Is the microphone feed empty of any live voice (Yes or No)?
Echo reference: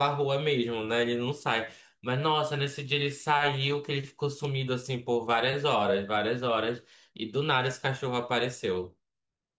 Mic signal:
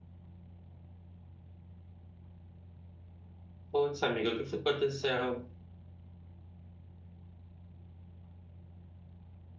No